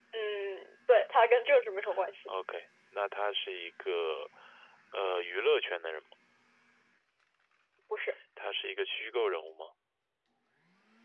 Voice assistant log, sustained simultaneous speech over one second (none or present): none